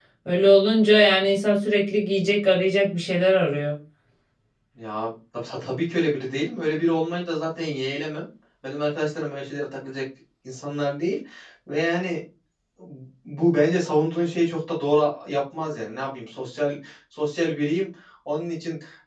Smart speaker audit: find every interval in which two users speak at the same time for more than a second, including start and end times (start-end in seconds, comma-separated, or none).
none